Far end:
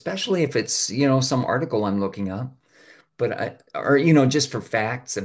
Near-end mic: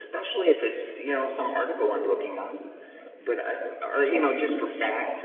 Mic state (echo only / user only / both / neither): echo only